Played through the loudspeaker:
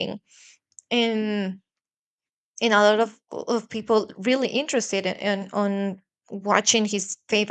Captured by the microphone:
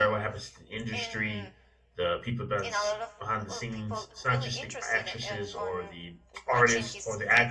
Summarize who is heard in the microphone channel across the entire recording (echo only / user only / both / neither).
both